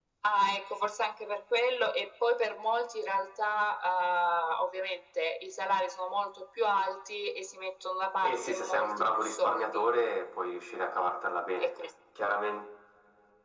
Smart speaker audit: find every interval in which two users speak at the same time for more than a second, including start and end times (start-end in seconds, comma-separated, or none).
8.2-9.9